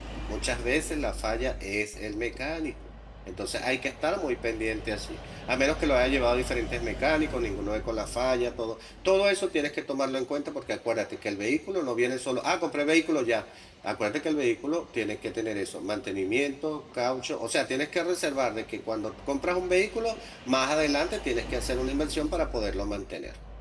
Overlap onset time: none

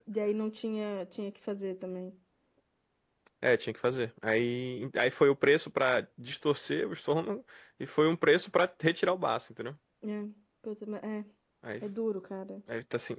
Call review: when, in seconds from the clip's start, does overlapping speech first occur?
none

